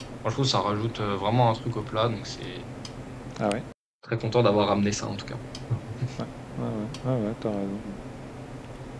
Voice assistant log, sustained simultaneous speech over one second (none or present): none